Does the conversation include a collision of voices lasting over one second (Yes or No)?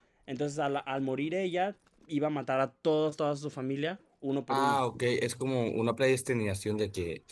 No